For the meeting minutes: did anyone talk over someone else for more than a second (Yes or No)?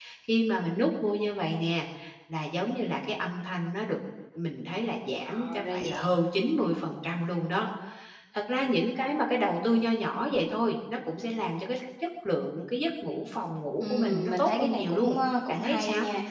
Yes